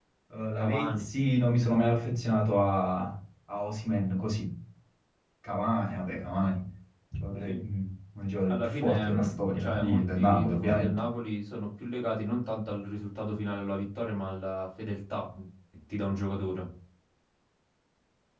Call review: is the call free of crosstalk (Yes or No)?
No